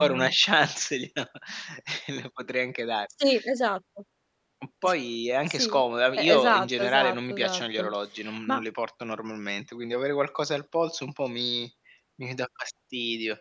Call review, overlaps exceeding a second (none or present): present